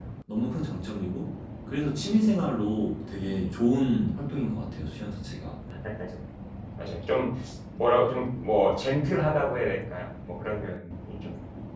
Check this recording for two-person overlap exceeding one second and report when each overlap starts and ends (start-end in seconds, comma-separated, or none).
none